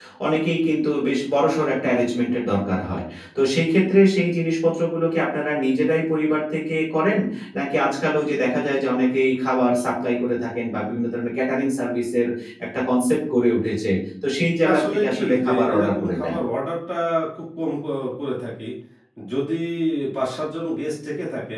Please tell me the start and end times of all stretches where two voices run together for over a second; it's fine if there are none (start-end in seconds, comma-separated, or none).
14.7-16.4